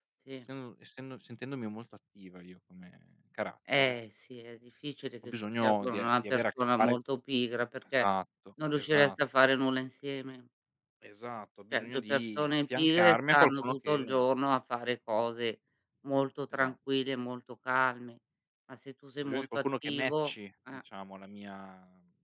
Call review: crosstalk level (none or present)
present